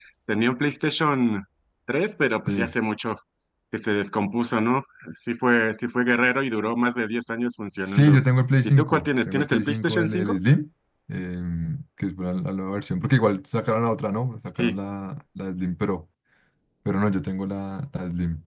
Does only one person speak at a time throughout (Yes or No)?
No